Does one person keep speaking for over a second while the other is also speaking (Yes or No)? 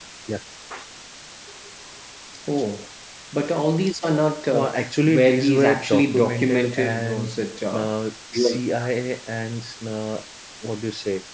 Yes